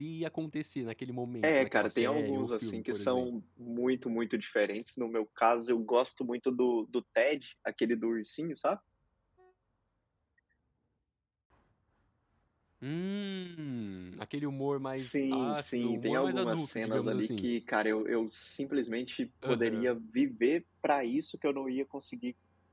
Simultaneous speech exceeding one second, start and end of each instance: 1.4-3.3, 15.0-17.5

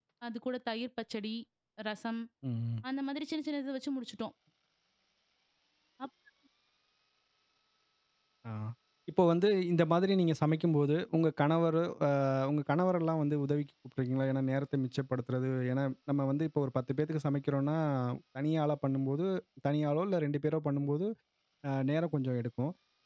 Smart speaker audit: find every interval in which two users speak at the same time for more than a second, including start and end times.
none

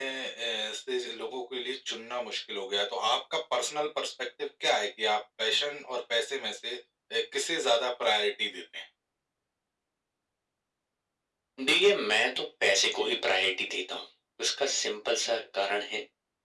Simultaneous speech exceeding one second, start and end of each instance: none

